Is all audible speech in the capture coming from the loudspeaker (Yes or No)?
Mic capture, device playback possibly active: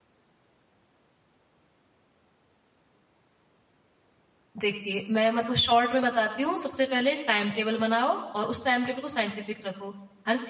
No